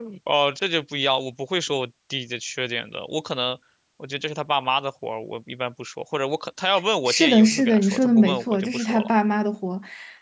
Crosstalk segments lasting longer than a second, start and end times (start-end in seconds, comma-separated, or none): 7.1-9.1